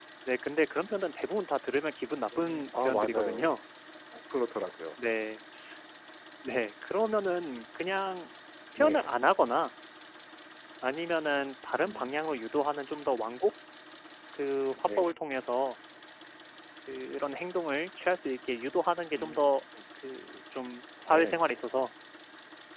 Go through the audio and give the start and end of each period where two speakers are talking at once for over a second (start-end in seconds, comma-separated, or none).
2.4-3.6